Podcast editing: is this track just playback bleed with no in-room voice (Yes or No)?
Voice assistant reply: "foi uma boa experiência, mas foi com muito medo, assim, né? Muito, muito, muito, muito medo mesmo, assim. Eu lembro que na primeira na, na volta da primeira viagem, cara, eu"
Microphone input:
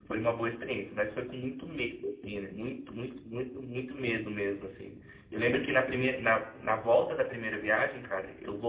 Yes